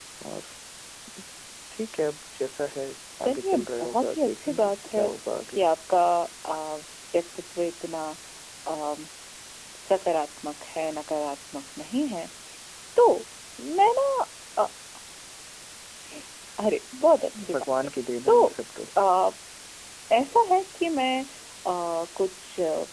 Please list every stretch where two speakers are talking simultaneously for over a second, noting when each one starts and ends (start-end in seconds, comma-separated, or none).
3.2-5.0